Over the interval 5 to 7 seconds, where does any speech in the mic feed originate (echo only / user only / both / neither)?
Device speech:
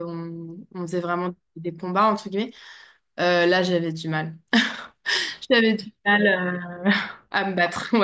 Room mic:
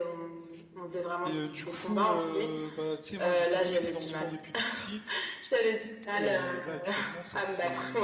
both